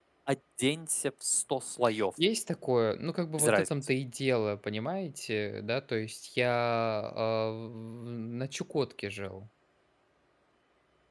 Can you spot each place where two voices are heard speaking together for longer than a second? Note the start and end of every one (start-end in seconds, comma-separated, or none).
none